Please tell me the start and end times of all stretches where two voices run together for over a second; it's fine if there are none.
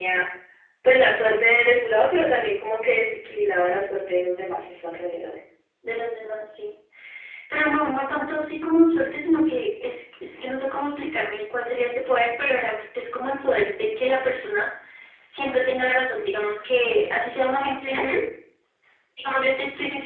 none

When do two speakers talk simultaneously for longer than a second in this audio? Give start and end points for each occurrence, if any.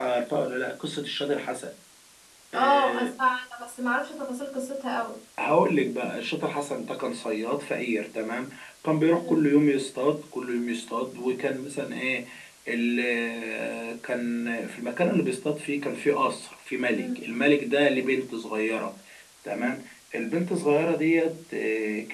none

